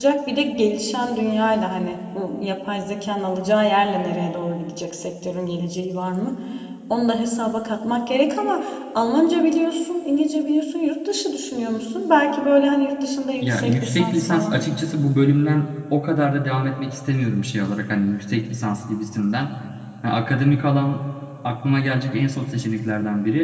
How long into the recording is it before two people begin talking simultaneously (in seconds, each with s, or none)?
13.4 s